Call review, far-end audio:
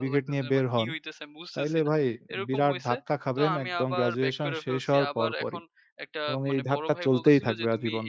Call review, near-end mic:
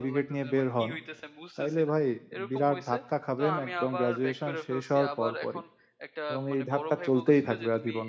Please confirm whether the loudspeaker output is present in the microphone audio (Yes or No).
Yes